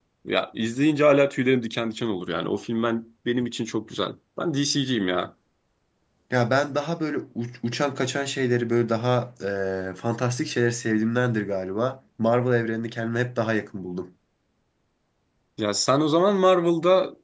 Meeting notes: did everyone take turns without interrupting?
Yes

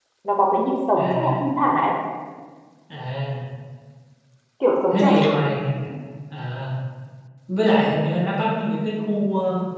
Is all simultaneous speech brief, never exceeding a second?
Yes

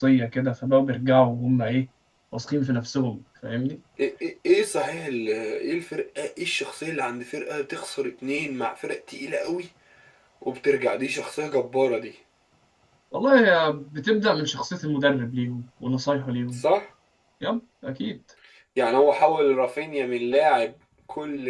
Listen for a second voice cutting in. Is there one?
No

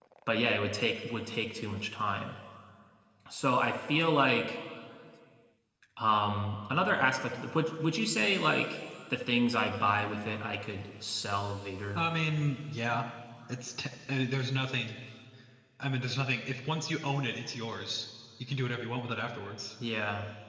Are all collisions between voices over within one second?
Yes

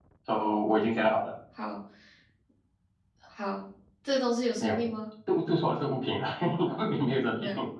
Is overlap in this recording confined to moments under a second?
Yes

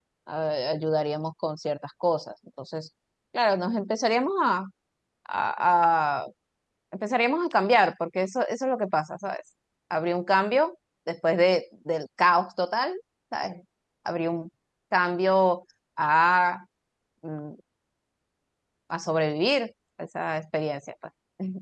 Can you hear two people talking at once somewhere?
No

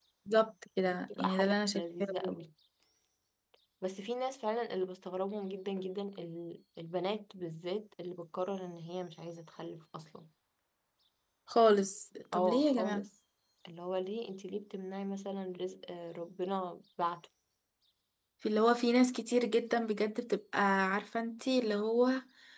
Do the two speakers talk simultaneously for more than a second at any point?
Yes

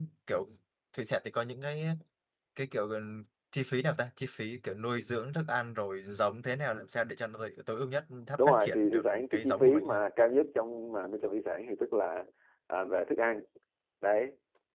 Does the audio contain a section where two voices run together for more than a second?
Yes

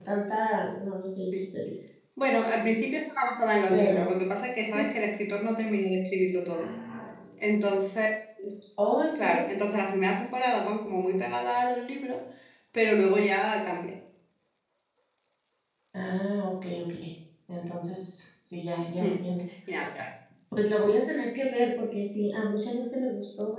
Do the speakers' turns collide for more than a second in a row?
No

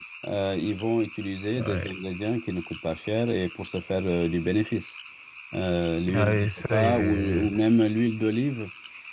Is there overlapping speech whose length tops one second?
Yes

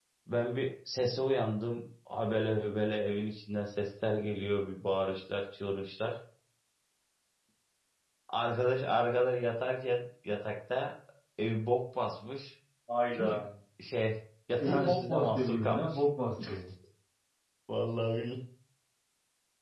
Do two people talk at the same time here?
Yes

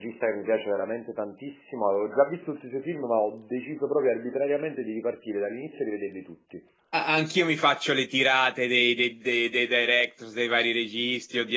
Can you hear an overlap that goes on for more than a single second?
No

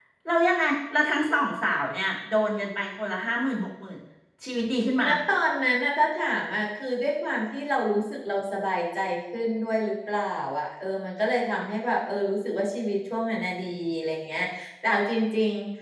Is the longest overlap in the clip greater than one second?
No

